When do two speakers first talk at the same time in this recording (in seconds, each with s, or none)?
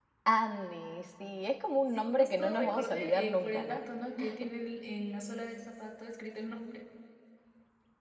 1.9 s